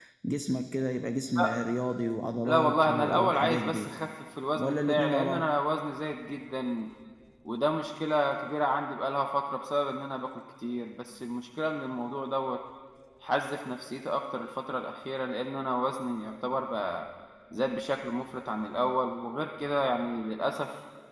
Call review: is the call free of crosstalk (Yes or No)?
No